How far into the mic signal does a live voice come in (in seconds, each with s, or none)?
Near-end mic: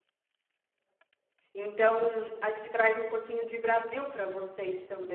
1.5 s